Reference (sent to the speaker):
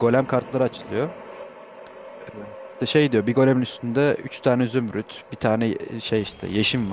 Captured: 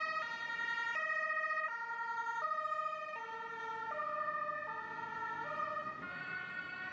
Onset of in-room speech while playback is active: none

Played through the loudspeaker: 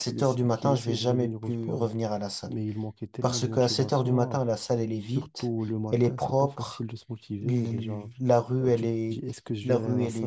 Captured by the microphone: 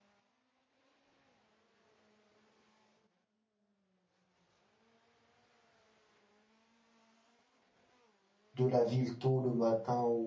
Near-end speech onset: 8.5 s

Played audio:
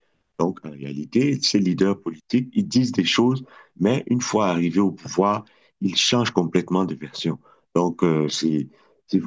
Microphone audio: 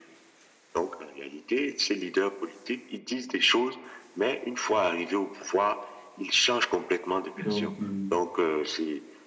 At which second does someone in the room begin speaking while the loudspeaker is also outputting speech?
7.4 s

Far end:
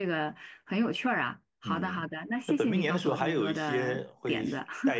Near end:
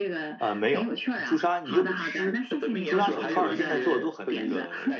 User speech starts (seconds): 0.4 s

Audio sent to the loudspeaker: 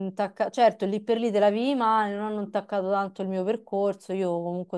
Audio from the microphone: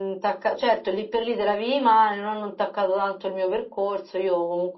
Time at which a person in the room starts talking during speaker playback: none

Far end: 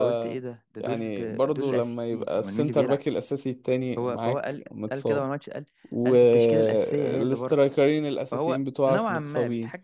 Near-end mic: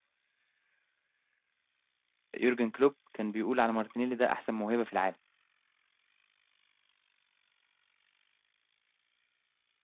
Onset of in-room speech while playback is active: 2.4 s

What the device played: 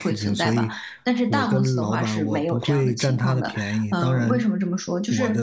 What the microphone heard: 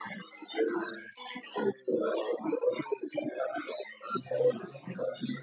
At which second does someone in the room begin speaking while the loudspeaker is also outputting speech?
4.2 s

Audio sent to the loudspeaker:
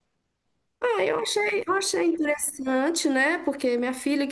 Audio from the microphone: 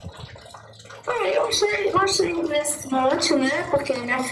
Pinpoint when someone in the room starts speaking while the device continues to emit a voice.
none

